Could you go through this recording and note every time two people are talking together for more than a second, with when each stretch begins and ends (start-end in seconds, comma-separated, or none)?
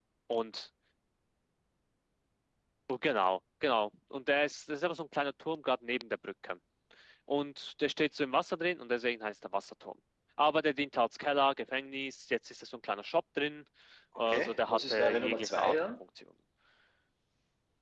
14.2-15.7